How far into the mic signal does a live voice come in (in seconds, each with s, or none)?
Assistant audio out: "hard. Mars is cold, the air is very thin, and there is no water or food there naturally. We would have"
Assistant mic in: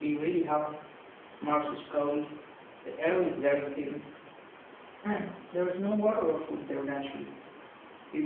none